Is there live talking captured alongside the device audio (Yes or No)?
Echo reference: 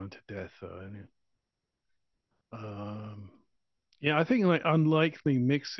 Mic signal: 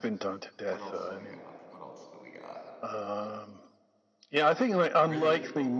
Yes